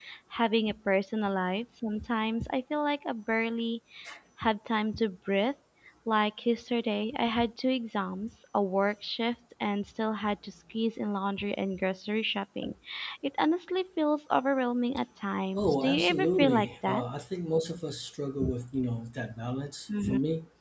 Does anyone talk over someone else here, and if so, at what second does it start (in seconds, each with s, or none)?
15.6 s